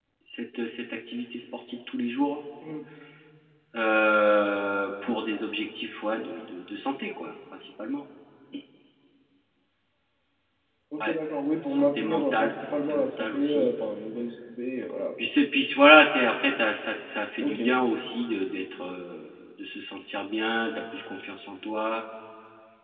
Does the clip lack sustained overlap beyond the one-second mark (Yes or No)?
No